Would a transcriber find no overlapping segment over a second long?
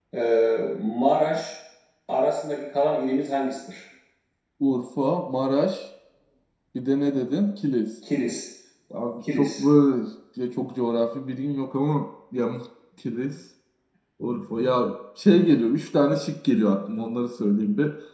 Yes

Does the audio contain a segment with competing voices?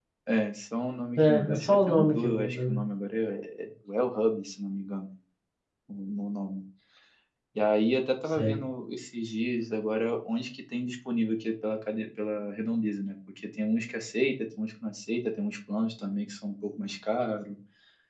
Yes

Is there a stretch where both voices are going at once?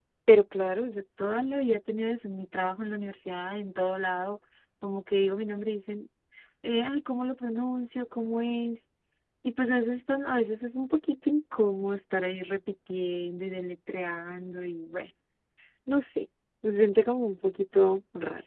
No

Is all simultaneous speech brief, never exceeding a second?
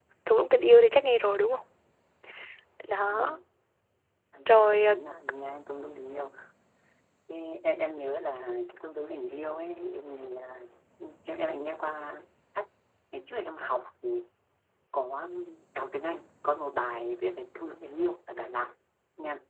Yes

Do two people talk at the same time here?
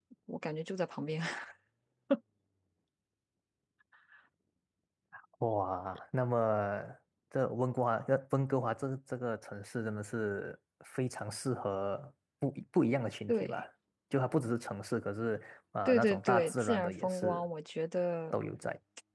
Yes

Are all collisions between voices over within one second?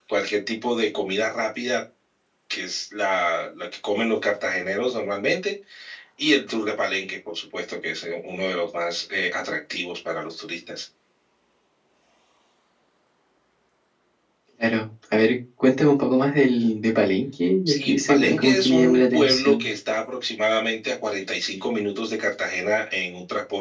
No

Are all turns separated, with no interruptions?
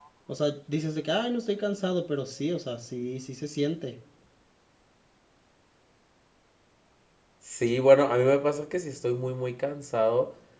Yes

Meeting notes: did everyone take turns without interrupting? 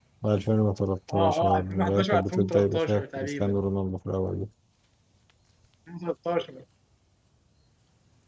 No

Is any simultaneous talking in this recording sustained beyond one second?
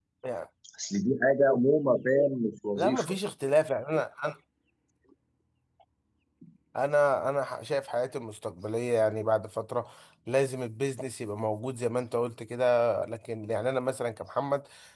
No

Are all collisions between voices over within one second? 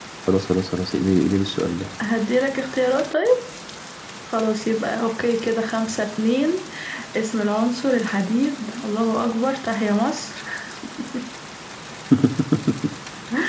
Yes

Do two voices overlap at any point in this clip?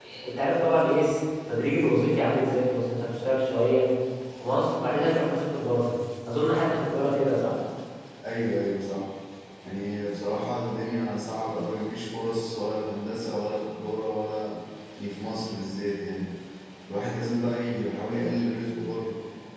No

